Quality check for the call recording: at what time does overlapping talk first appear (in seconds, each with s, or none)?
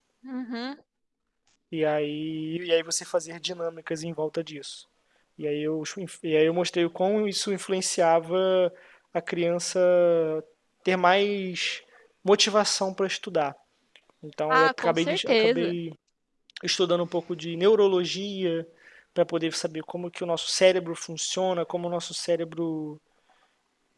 14.5 s